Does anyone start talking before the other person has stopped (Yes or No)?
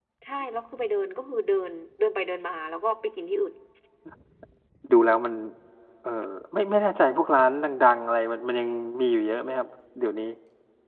No